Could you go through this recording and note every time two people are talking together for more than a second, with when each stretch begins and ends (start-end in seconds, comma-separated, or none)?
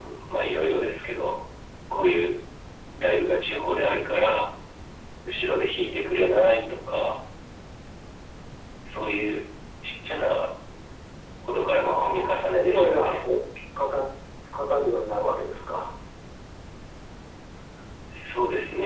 11.8-13.2